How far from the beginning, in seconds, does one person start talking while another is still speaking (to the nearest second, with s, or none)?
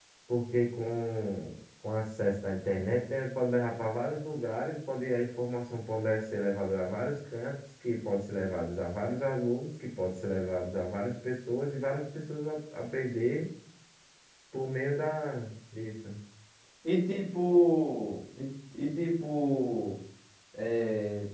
none